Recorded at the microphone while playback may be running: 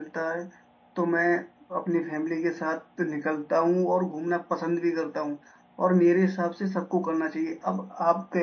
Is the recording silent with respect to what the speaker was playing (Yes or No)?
Yes